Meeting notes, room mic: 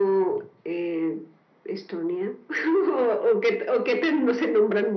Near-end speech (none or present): none